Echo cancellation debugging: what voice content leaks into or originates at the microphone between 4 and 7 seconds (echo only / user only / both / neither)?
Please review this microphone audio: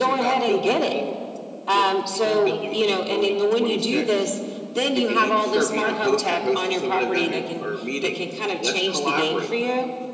echo only